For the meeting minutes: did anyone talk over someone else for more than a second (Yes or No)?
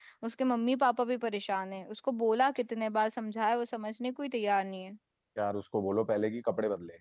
No